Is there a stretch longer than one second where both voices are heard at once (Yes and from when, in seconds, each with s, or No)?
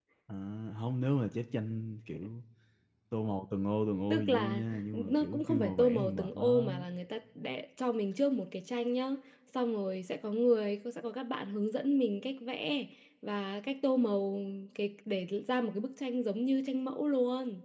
Yes, from 4.1 s